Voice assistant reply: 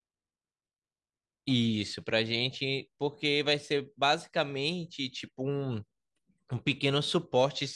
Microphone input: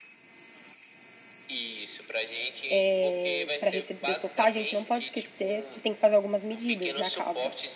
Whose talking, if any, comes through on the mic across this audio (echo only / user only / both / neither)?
both